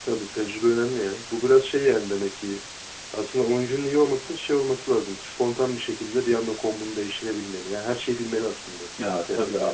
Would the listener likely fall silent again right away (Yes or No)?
No